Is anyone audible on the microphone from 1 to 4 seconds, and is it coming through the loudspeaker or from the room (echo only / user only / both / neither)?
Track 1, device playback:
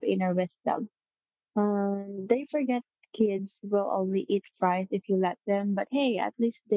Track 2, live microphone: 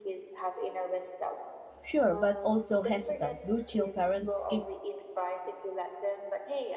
both